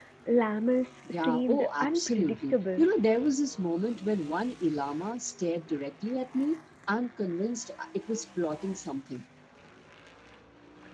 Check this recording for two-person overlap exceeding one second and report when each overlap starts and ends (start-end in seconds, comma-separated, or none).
1.1-2.8